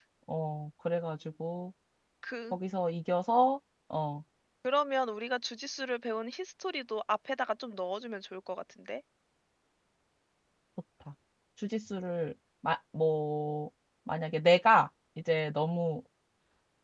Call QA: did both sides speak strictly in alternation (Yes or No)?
Yes